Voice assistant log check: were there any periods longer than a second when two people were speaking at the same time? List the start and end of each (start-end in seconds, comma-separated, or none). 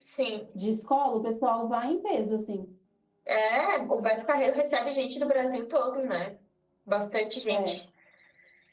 none